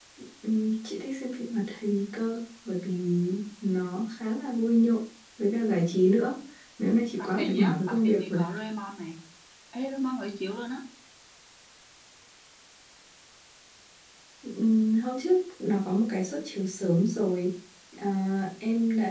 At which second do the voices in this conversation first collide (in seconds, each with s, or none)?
7.2 s